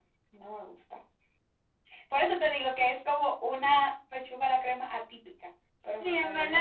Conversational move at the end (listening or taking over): taking over